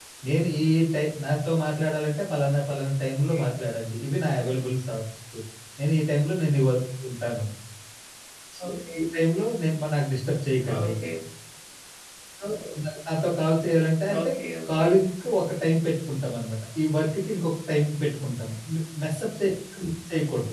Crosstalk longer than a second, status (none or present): none